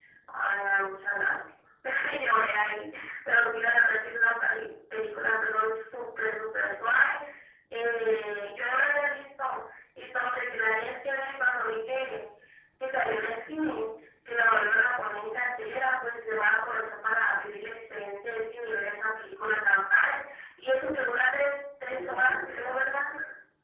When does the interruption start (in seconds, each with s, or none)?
21.9 s